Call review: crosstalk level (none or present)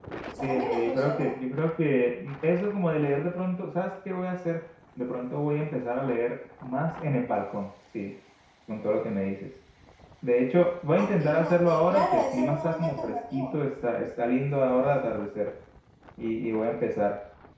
present